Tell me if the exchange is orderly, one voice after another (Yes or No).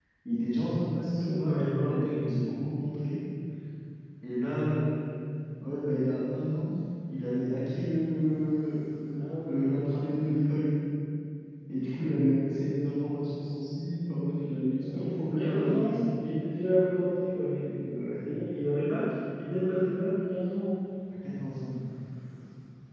No